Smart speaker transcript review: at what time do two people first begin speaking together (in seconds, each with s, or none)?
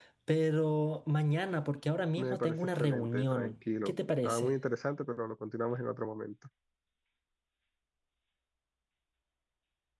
2.2 s